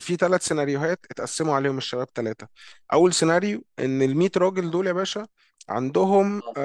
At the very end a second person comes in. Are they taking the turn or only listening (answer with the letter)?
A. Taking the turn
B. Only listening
B